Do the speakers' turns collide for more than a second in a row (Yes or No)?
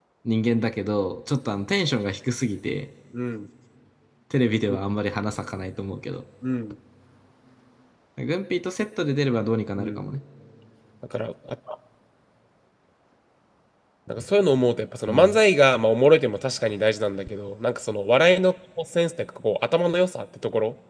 No